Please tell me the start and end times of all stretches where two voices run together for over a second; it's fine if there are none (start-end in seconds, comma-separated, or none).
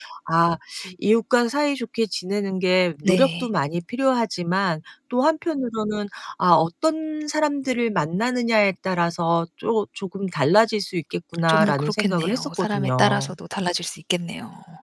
11.5-13.3